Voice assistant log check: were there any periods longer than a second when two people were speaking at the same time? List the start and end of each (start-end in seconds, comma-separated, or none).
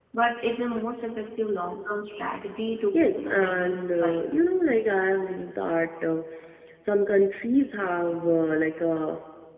2.9-4.3